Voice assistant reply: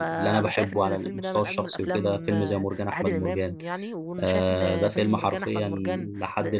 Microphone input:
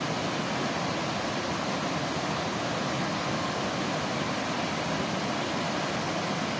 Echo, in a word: none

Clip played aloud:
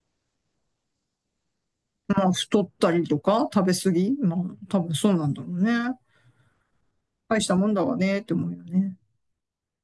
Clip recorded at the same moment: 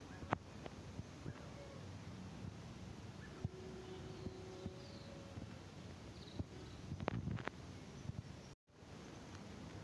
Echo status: none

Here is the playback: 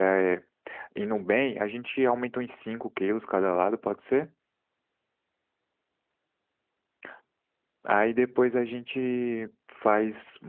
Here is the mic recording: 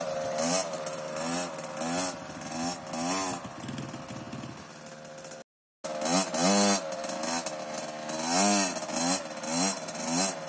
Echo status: none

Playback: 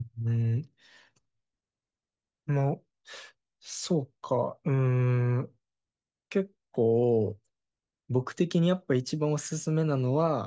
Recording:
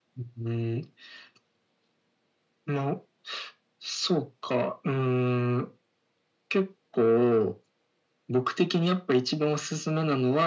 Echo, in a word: present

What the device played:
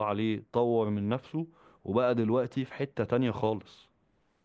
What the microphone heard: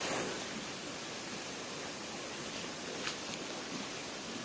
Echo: none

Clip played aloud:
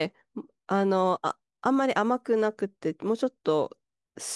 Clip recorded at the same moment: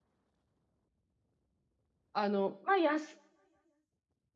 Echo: none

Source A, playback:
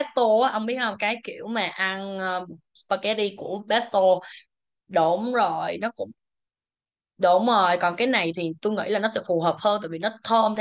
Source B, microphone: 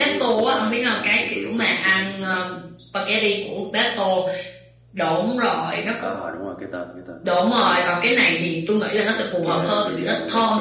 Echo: present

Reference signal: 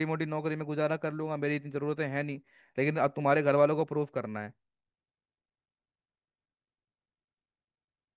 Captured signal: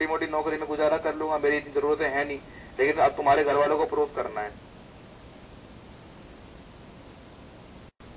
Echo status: present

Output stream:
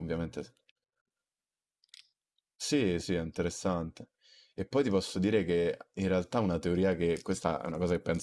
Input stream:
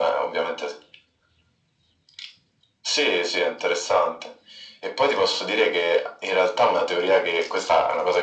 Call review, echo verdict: present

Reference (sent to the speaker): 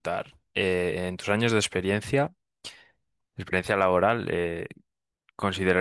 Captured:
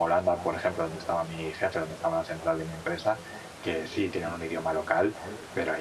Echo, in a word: none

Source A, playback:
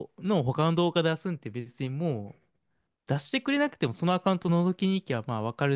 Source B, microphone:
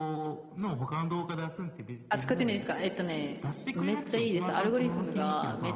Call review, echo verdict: present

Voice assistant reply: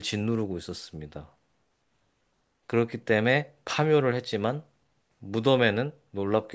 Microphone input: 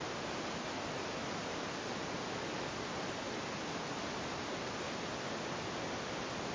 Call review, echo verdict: none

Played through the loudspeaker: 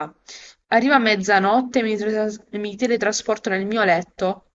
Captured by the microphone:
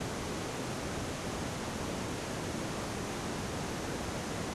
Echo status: none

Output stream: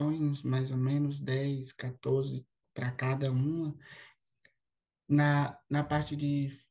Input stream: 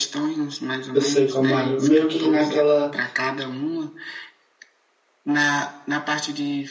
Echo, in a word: present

